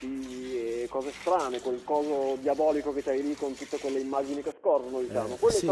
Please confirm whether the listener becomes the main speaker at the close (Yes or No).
Yes